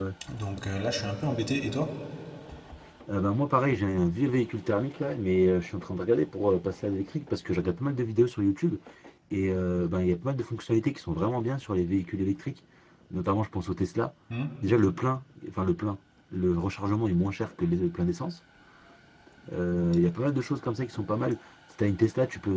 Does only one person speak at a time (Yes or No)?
Yes